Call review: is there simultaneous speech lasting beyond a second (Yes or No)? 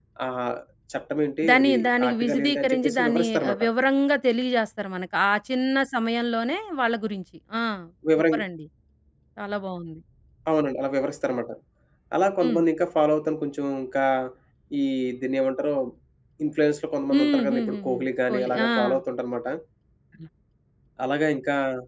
Yes